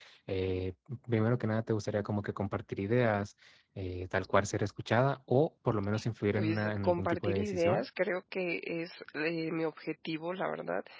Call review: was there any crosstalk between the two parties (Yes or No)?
Yes